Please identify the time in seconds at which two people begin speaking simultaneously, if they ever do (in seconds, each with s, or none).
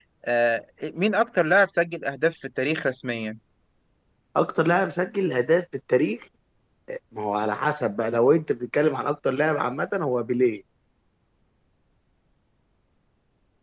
none